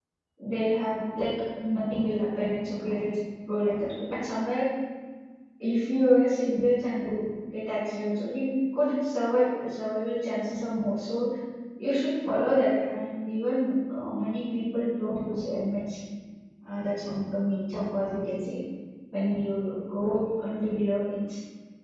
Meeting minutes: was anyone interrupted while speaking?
No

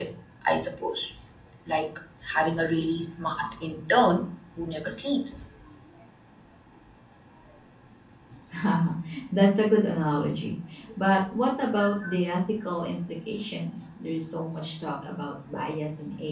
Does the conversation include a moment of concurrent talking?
No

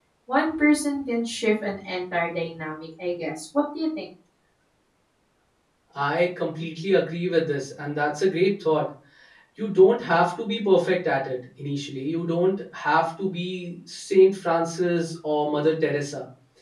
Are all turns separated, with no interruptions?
Yes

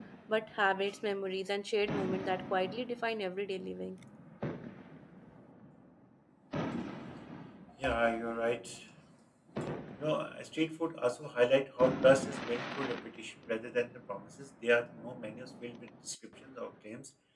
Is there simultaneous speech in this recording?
No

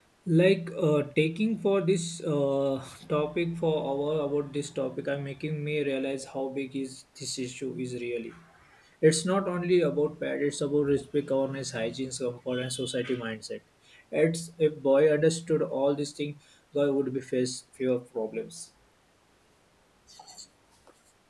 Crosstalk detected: No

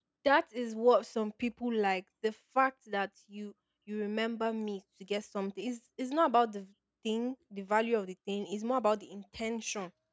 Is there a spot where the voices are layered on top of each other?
No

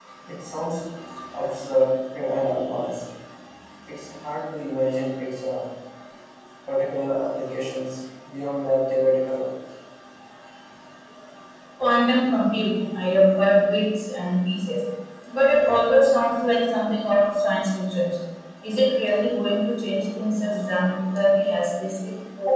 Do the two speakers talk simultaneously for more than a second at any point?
No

